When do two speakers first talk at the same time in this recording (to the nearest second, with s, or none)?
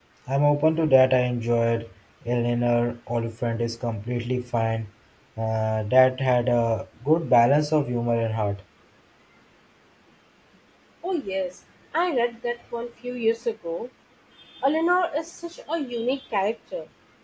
none